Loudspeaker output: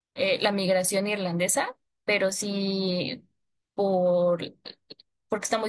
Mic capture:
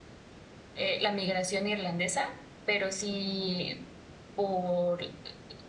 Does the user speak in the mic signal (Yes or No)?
No